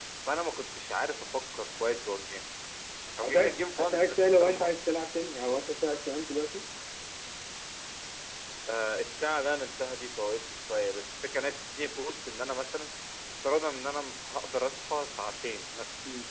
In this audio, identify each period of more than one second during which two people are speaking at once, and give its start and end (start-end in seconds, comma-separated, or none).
3.2-4.7